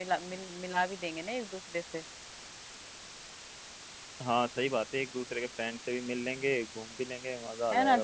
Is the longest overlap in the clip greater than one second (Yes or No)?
No